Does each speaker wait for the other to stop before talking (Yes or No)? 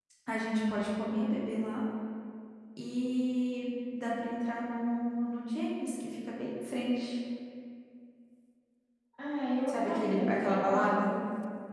No